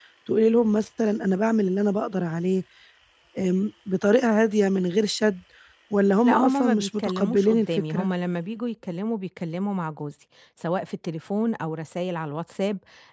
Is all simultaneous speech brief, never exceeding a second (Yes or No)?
No